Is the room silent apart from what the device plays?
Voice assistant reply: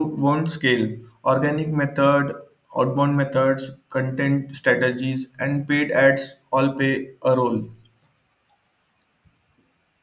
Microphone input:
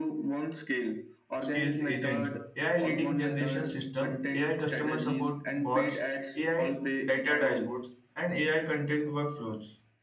No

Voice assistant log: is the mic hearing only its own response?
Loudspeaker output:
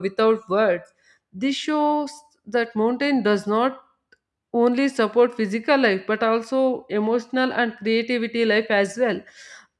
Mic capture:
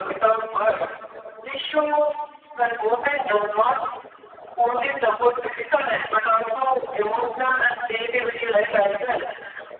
Yes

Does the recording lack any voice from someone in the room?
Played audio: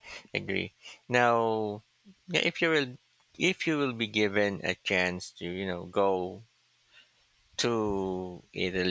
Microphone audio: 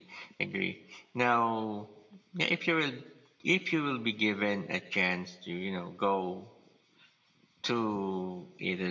Yes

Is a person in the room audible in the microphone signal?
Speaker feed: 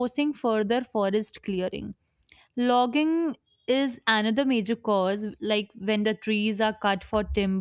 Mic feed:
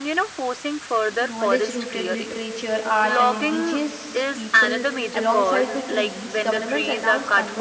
Yes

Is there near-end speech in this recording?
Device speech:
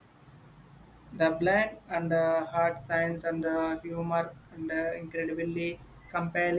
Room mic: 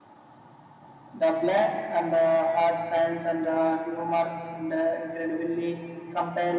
No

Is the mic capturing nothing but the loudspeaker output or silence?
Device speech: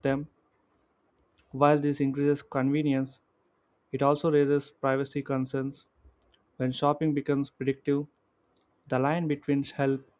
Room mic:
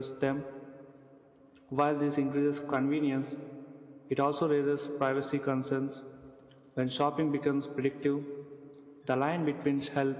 Yes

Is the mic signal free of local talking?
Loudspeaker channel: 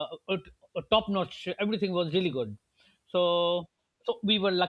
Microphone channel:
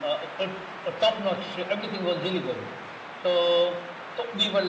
Yes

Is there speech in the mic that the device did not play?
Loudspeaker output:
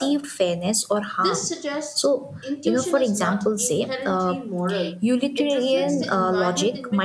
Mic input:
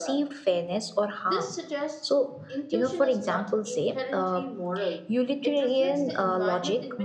No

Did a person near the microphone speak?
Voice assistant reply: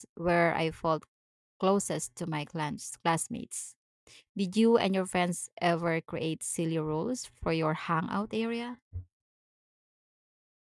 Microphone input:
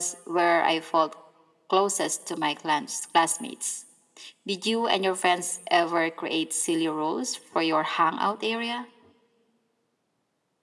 No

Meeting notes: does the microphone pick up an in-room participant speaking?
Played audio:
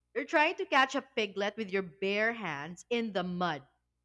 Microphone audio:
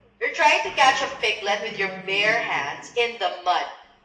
Yes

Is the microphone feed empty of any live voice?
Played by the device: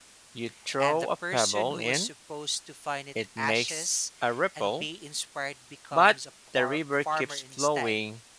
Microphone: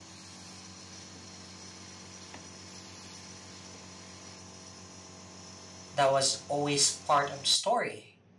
No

